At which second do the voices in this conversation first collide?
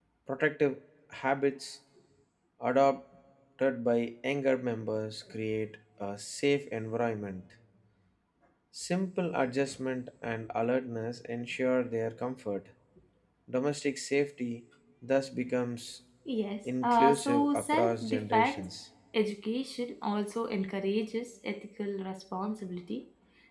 16.8 s

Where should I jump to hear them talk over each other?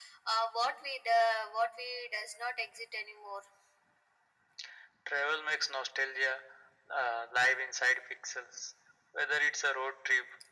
none

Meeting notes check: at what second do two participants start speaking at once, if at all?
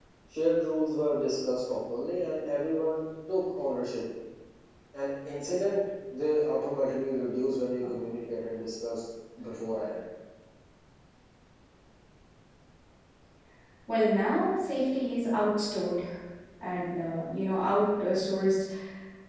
none

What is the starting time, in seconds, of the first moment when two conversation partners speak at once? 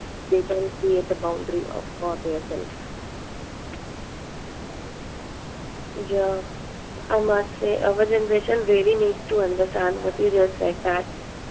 none

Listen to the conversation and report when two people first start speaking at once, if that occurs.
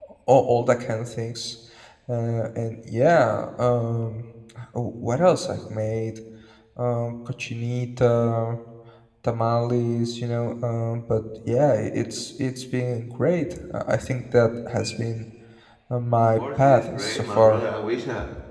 16.4 s

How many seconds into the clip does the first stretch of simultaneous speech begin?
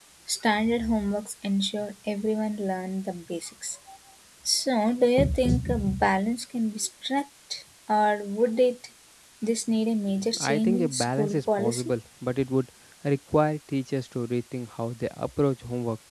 10.3 s

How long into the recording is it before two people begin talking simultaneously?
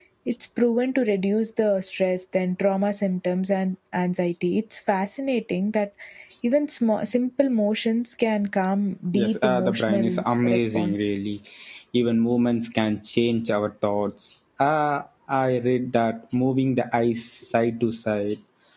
9.1 s

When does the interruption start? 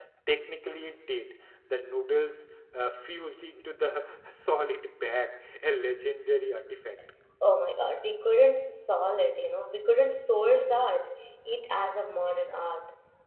none

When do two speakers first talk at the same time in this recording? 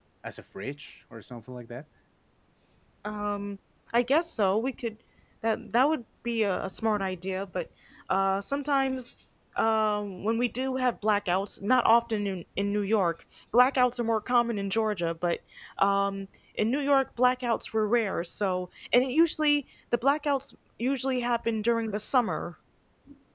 none

